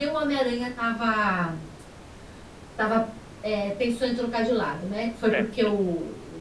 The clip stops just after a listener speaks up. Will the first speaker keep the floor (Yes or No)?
Yes